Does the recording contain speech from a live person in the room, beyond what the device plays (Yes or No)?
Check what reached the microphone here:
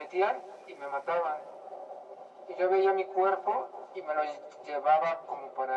No